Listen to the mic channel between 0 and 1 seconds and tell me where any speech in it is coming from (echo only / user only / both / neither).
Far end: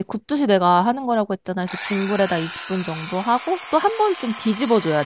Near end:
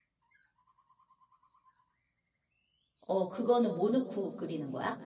neither